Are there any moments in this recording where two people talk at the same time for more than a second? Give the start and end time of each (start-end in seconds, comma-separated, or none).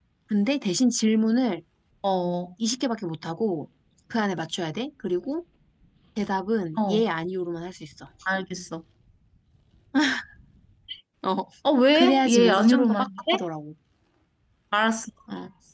11.9-13.4